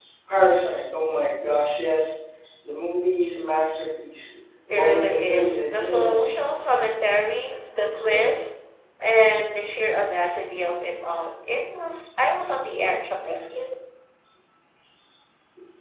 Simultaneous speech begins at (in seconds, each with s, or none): 4.7 s